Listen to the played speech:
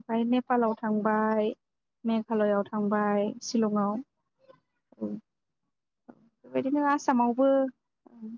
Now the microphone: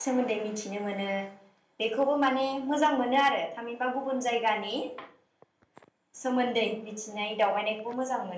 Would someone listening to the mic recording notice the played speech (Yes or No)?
No